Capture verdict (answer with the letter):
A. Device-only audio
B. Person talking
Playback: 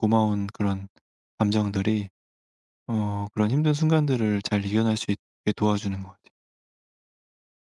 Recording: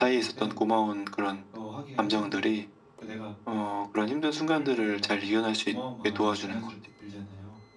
B